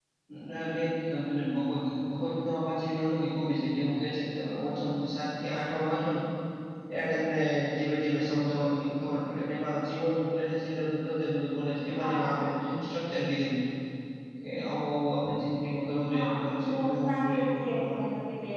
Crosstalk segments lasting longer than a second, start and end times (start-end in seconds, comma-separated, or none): 16.1-17.9